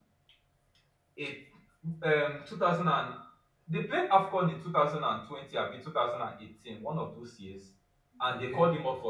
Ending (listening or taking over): listening